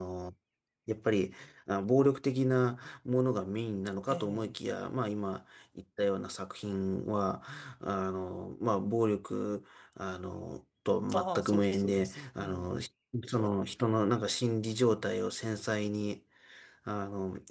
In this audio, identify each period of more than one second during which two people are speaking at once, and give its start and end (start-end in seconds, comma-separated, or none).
11.1-12.8